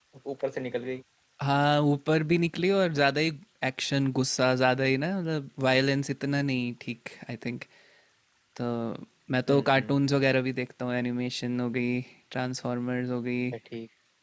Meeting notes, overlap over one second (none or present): none